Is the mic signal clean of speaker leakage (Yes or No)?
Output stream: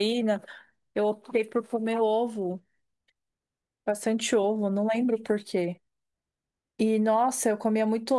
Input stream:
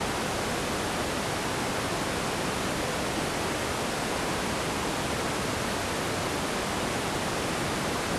Yes